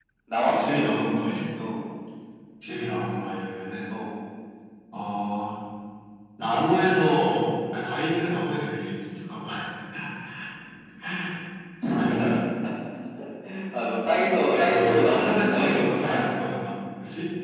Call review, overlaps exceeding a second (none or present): present